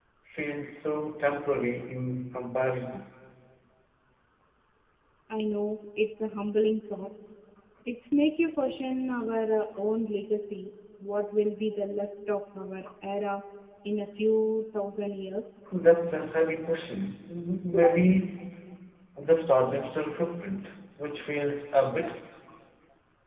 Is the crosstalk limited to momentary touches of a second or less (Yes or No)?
Yes